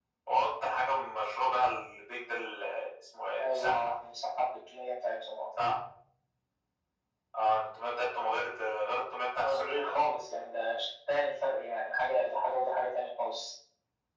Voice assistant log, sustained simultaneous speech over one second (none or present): none